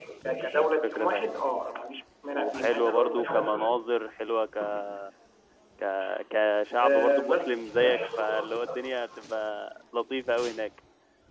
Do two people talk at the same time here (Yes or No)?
Yes